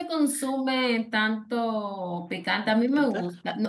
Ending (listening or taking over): listening